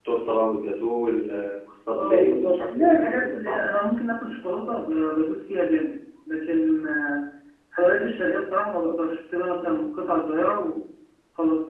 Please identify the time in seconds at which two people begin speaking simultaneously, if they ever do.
2.0 s

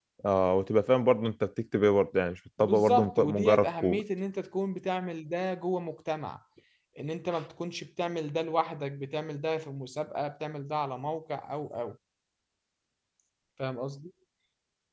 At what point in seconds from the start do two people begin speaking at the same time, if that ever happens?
2.6 s

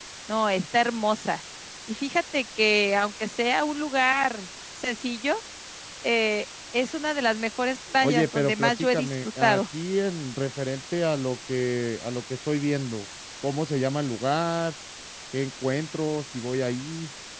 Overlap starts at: 8.0 s

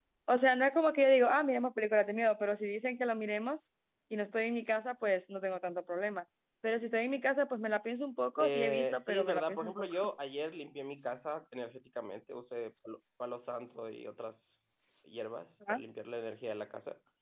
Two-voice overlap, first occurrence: 8.4 s

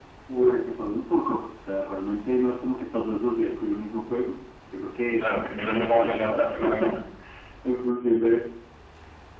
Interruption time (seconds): 5.0 s

